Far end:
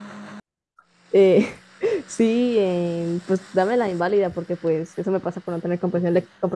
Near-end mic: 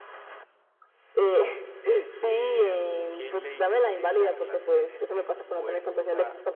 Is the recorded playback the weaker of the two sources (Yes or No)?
No